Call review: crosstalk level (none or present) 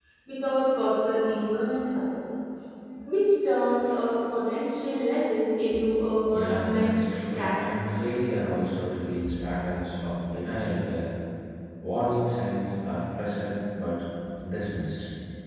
present